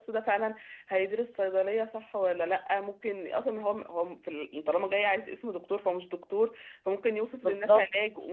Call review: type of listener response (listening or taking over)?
listening